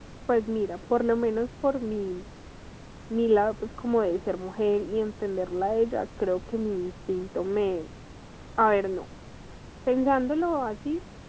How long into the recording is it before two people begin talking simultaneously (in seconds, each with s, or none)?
none